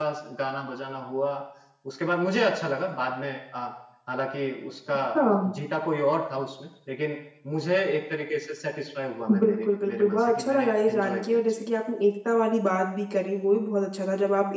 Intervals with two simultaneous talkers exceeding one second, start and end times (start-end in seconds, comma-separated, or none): 9.3-11.6